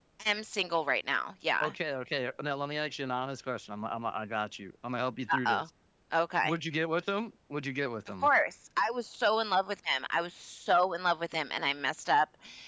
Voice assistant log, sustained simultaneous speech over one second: none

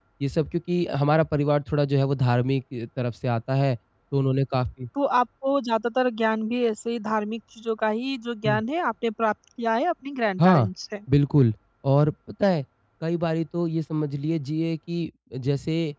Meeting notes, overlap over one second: none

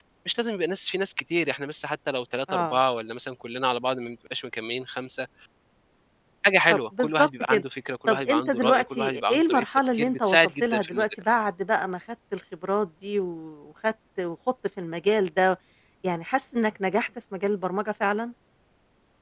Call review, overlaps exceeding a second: present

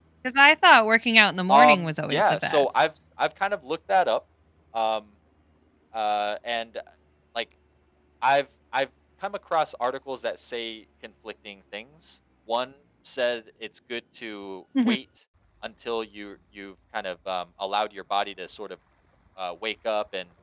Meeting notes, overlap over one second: present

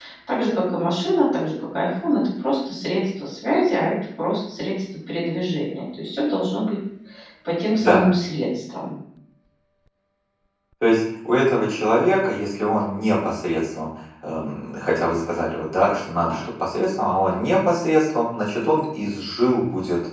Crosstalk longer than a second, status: none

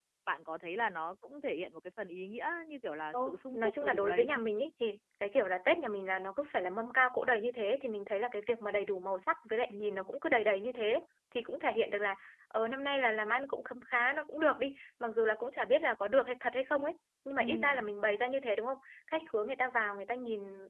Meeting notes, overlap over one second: present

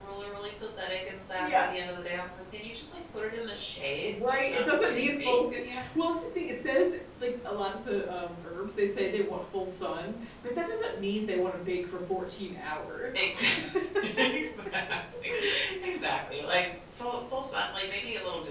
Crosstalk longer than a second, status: present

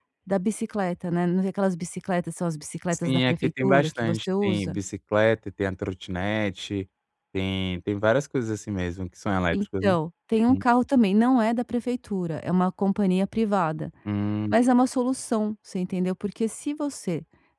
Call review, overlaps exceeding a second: present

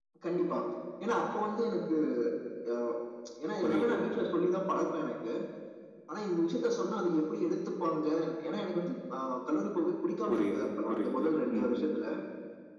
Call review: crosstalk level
present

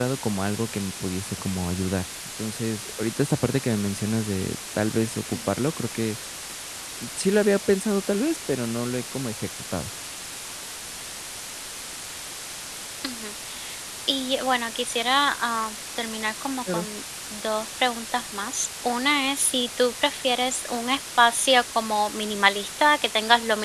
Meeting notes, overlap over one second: none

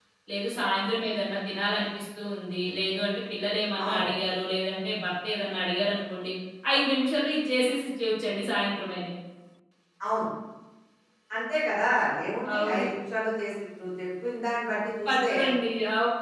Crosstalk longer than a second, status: none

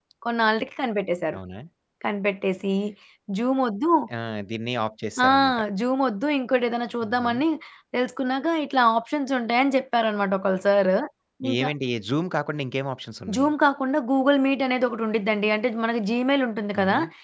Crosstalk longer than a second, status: none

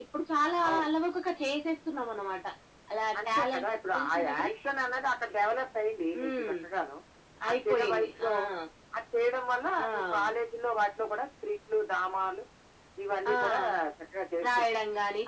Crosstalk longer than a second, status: present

